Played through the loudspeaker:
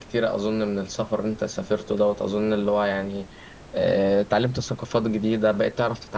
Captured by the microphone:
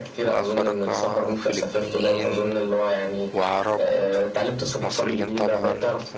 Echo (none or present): present